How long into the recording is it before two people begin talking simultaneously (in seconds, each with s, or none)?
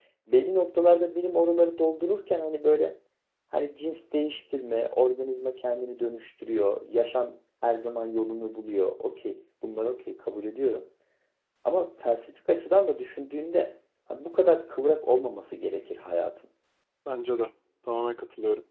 none